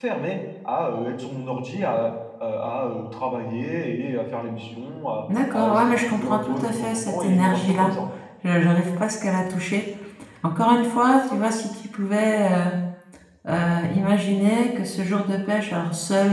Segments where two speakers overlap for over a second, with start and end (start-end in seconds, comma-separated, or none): 5.5-7.9